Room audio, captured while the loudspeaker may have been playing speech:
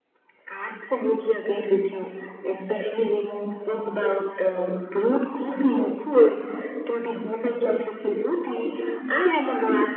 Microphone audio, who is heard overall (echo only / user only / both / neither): echo only